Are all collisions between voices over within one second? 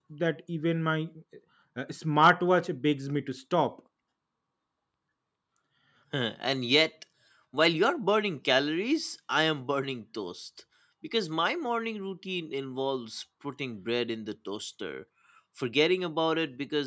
Yes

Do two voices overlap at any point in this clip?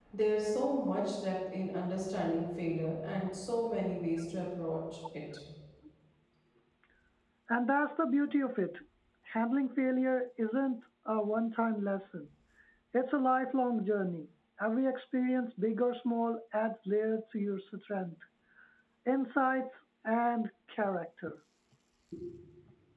No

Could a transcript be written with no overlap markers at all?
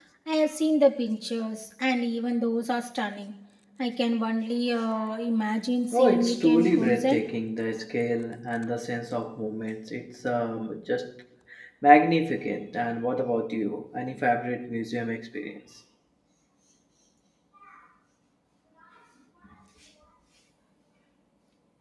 No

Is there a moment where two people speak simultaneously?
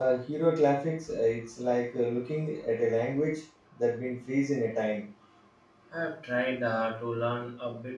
No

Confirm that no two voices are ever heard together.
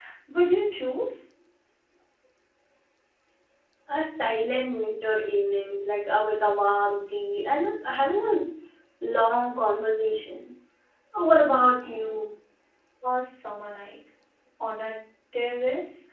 Yes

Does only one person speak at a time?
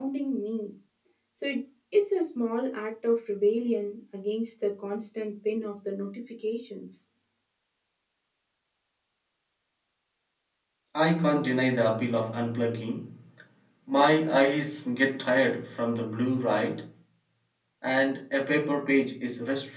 Yes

